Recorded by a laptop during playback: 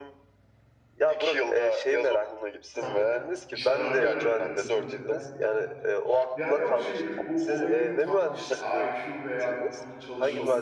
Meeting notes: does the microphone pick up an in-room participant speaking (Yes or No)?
Yes